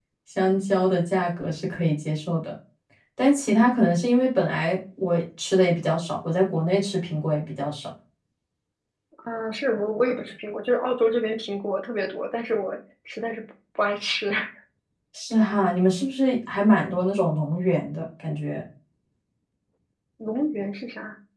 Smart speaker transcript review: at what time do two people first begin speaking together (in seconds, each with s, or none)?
none